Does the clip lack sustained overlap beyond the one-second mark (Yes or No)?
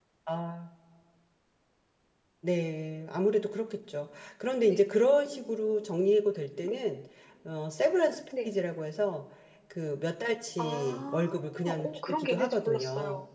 No